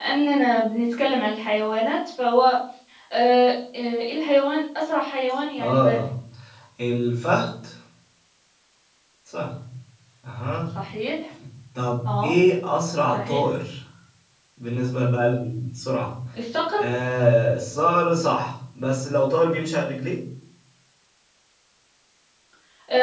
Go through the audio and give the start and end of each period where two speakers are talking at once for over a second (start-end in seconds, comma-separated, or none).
none